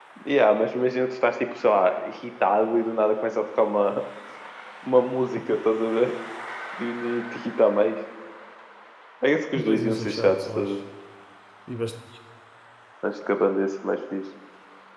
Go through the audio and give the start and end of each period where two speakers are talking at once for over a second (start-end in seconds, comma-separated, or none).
9.6-10.8